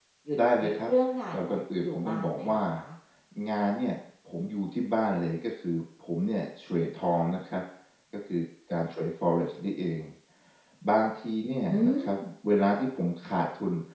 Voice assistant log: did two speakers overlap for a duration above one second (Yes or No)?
Yes